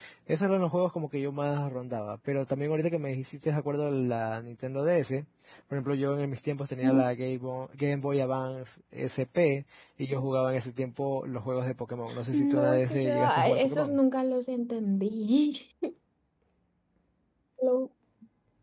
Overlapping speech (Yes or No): Yes